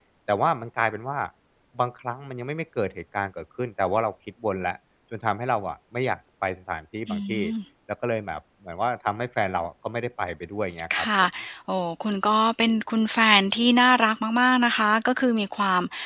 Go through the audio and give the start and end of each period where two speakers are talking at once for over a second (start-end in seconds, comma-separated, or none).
none